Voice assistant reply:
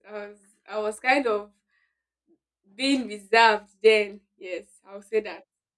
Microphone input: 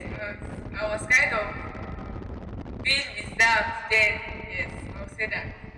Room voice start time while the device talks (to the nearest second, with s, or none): none